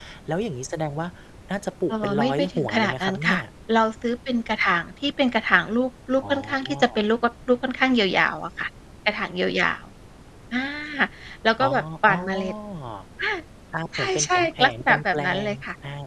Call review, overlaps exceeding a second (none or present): present